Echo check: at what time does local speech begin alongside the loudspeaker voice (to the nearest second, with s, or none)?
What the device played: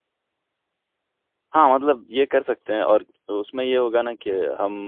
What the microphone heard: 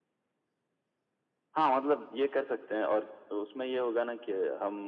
none